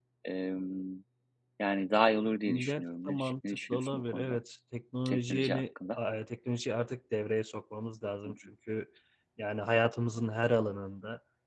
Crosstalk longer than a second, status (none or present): present